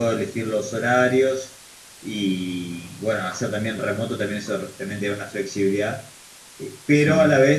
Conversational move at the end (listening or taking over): listening